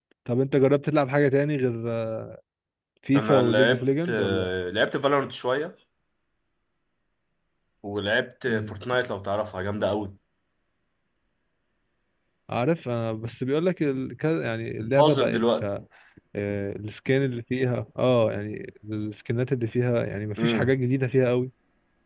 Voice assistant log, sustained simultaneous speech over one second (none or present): present